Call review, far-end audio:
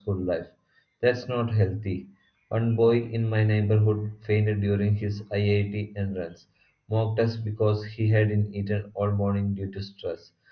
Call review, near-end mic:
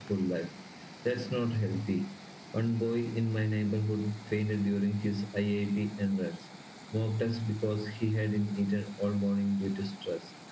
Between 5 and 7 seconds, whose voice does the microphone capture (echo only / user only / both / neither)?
echo only